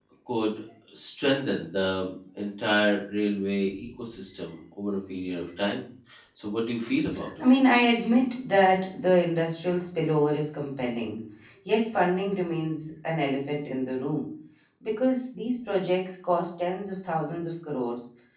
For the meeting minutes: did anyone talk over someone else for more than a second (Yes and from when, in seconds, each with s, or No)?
No